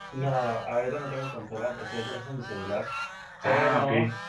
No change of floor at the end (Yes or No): Yes